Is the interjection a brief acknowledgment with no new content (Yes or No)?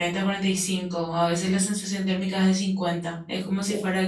Yes